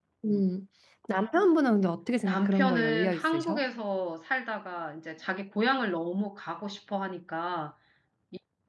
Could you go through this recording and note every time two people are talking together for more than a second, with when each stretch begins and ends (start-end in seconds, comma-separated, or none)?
2.2-3.6